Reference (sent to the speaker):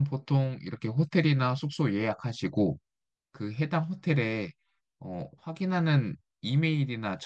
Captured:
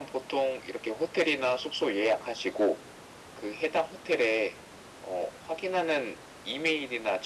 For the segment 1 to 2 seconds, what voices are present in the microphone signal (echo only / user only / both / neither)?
echo only